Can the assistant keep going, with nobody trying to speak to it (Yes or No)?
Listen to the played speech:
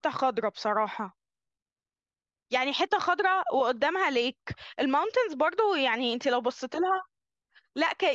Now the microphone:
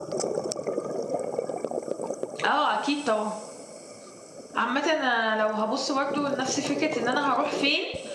No